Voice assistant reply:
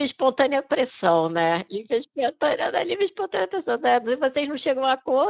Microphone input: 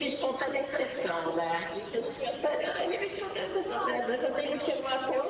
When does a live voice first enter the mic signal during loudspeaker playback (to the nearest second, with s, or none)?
3 s